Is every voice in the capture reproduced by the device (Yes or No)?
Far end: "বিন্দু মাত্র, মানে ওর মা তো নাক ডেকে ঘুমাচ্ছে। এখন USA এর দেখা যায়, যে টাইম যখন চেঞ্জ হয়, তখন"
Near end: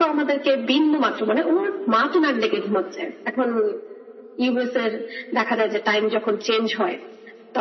Yes